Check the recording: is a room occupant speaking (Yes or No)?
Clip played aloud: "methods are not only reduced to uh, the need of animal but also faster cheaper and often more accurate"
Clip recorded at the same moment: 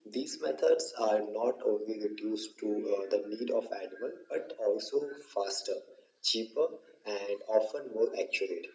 No